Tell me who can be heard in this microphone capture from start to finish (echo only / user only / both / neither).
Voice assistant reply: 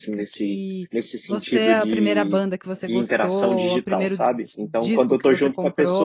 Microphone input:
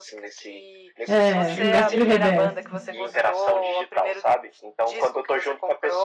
both